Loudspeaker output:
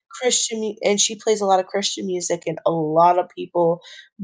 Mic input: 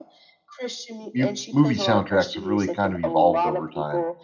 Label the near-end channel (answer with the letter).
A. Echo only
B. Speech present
B